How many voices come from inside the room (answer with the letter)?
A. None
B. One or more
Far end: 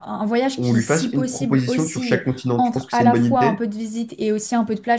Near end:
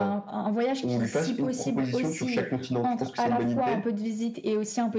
A